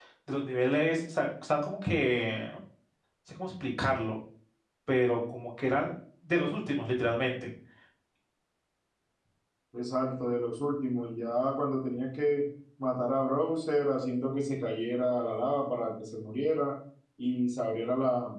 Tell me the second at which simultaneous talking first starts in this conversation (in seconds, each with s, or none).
none